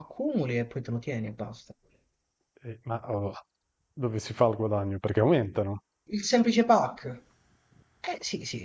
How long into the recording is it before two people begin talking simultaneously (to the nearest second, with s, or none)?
none